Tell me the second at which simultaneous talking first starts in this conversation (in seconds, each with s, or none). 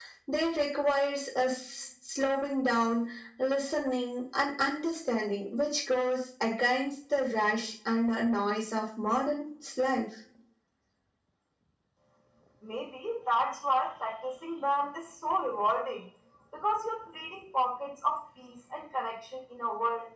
none